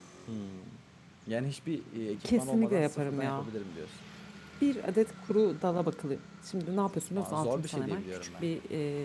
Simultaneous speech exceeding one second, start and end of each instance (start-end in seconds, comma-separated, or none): 2.2-3.5, 7.1-8.5